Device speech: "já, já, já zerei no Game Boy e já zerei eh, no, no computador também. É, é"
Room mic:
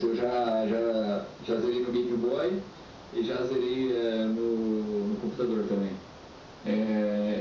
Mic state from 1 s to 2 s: echo only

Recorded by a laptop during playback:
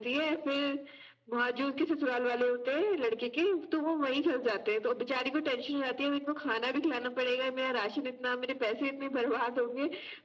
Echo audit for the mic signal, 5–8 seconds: echo only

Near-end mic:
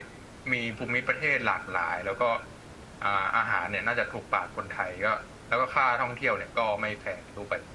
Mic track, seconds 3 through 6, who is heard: echo only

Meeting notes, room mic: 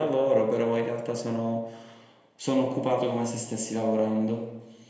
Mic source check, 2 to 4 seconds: echo only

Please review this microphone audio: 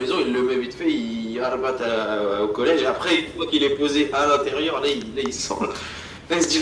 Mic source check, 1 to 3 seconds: echo only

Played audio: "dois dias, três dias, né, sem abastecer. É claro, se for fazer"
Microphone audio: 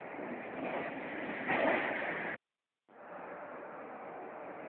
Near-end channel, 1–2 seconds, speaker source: neither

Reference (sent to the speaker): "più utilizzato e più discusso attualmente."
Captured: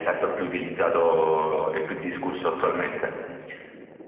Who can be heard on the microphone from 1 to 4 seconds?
echo only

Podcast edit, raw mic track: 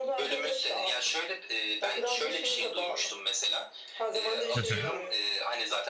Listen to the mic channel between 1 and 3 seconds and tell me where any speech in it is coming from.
echo only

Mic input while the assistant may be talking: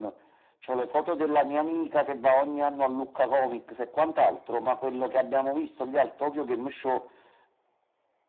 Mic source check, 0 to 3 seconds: echo only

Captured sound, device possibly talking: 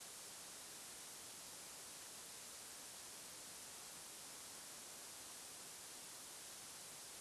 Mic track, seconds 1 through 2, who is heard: neither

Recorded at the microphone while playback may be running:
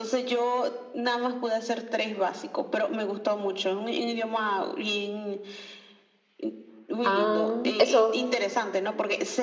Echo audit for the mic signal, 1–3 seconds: echo only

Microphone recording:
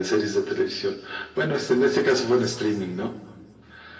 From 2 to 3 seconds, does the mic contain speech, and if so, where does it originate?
echo only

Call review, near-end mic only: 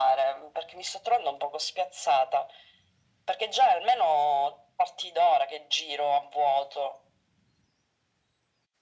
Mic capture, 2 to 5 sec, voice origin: echo only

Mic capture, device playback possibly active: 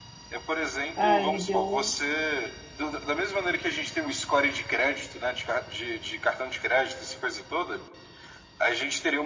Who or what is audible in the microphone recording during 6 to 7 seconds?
echo only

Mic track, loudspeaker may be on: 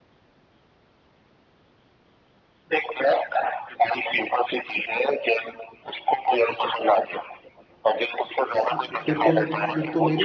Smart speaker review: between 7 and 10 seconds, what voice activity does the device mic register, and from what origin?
both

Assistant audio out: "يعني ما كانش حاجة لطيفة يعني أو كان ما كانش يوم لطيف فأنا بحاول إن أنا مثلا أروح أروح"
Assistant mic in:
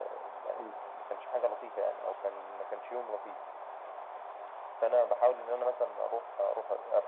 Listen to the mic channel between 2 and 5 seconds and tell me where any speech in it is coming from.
echo only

